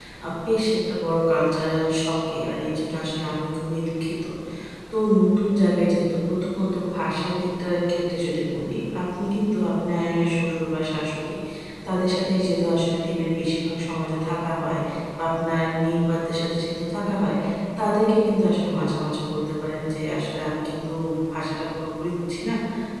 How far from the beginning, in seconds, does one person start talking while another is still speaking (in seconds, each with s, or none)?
none